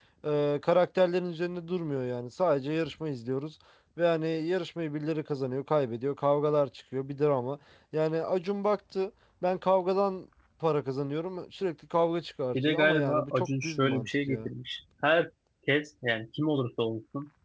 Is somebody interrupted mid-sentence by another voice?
Yes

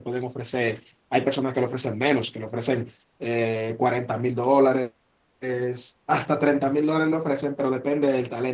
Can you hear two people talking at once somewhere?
No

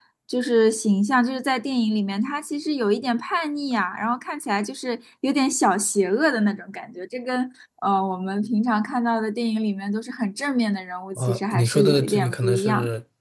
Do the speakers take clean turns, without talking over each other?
No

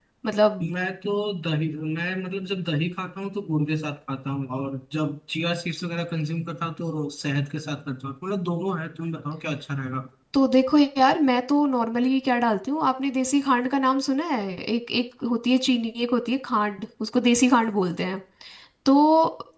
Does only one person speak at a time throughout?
Yes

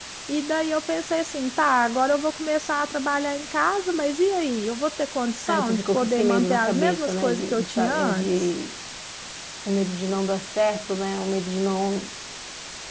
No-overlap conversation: No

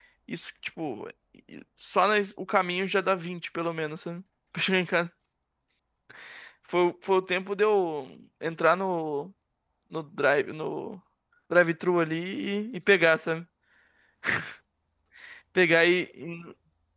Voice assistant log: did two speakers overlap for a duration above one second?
No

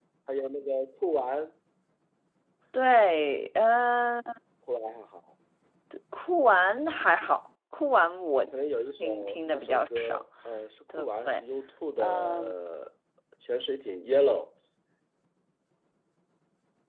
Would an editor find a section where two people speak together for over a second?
Yes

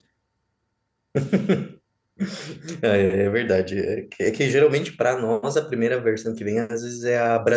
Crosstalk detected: No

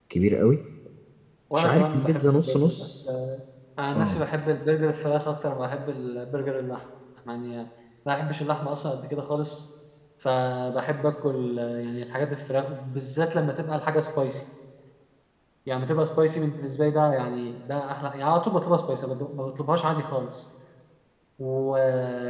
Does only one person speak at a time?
No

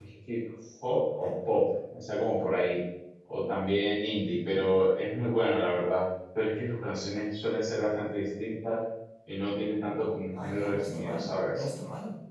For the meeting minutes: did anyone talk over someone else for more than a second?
Yes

